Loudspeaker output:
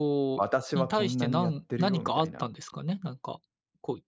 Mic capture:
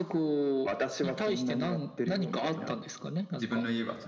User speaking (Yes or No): Yes